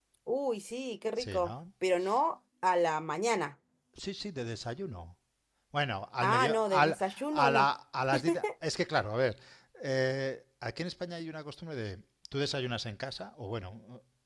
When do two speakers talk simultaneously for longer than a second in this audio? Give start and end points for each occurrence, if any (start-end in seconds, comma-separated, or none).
6.2-7.7